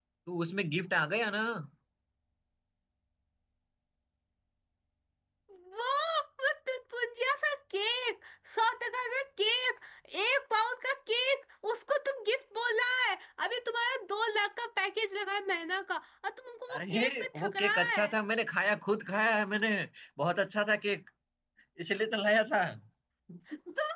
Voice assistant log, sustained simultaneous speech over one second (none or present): present